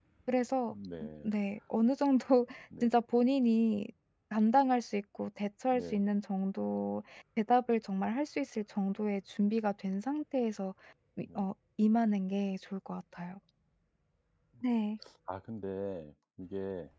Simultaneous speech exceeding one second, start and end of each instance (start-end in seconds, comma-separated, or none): none